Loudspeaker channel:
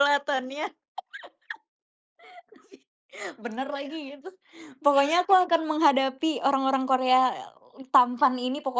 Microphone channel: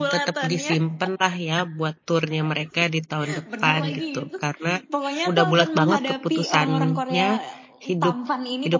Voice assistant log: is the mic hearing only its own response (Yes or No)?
No